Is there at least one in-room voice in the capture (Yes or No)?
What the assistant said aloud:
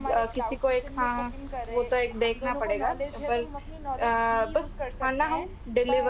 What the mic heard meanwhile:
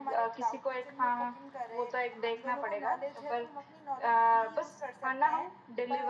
No